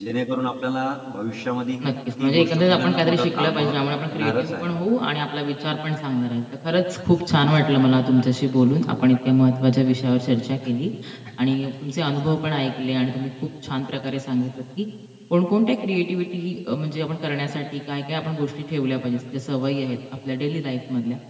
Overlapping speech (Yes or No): Yes